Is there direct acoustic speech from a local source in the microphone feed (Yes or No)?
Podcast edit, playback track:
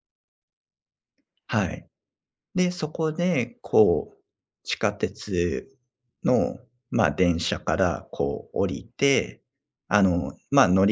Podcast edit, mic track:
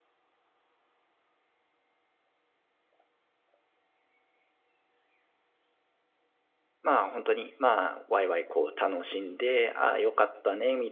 Yes